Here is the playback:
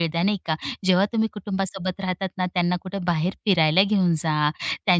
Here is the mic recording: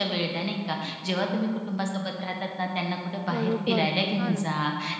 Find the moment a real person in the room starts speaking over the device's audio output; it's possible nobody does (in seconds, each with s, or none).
3.3 s